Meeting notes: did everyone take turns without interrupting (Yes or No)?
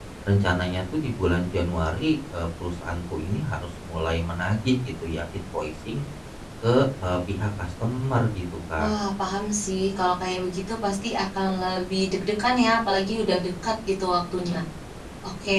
Yes